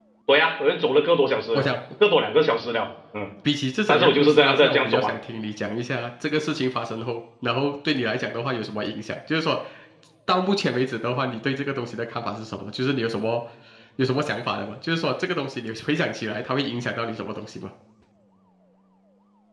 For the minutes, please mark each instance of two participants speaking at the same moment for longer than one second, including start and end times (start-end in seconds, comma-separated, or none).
3.9-5.1